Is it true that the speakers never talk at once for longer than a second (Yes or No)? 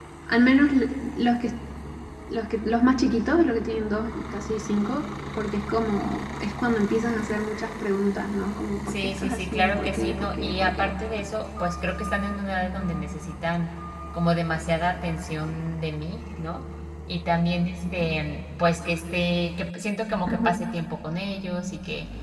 No